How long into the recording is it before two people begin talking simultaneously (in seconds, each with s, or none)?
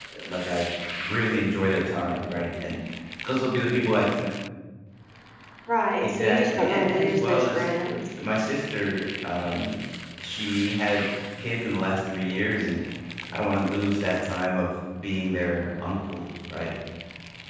6.0 s